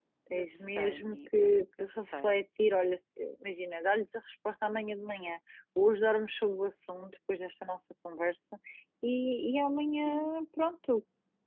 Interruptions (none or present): present